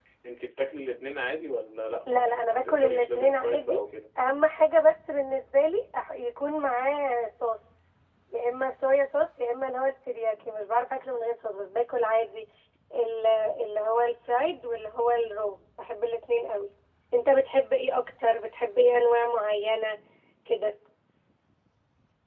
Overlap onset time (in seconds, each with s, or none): 2.1 s